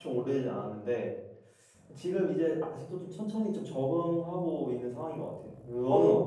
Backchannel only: No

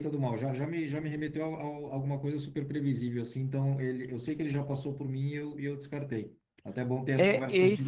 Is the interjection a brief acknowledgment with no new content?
No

